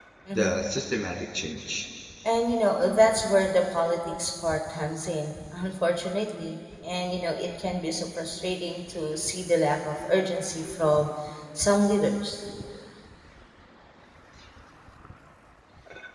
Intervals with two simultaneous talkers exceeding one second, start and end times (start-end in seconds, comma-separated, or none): none